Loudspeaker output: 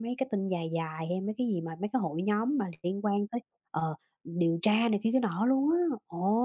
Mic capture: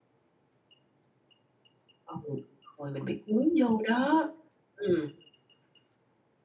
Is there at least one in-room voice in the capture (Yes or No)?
Yes